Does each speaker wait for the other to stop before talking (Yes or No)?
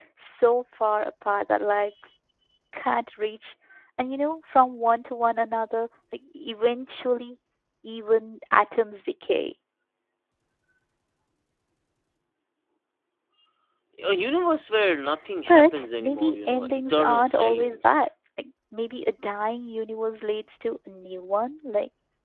No